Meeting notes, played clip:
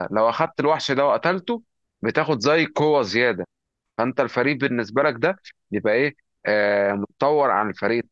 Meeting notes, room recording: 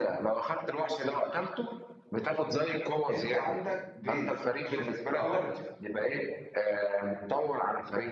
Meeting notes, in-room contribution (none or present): present